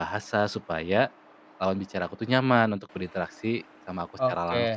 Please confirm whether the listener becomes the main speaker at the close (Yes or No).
Yes